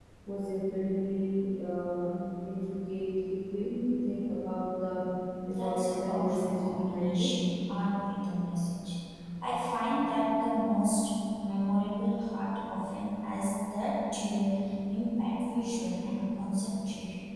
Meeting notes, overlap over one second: present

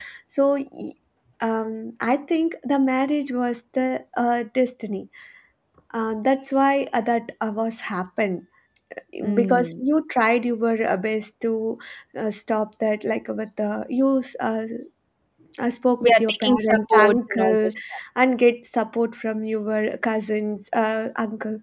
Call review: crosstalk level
present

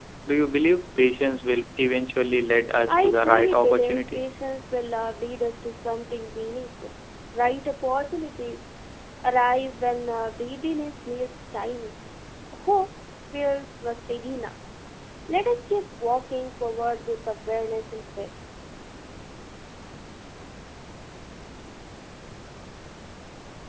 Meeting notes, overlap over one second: present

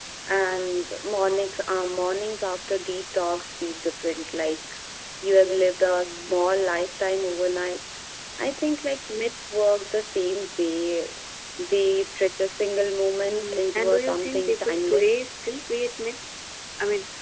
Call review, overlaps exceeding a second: present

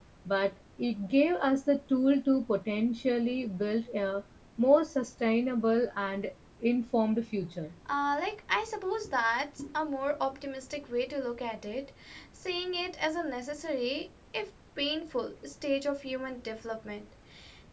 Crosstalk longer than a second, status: none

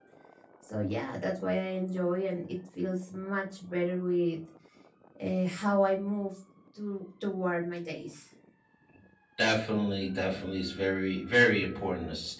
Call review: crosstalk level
none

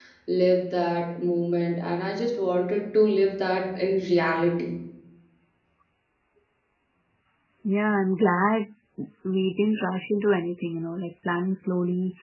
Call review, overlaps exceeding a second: none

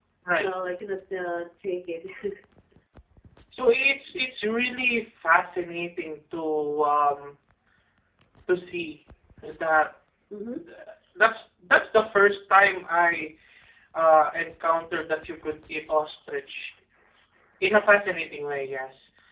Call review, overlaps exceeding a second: none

